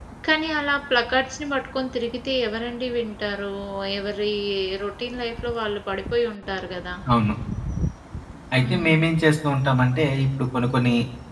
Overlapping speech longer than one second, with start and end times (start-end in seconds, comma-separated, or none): none